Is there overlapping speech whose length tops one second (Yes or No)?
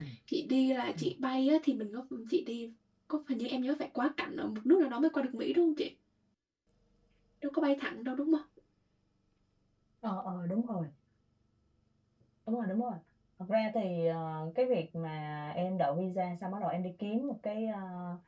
No